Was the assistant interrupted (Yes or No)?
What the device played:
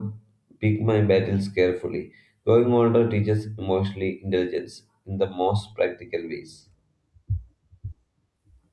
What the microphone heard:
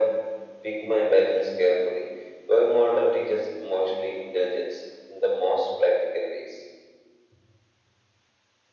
No